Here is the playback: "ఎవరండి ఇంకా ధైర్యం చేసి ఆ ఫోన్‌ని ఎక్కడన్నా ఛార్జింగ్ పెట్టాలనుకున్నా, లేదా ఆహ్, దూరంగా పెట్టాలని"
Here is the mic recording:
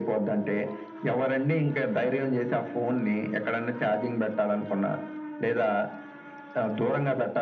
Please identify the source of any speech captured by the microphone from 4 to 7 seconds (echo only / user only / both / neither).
echo only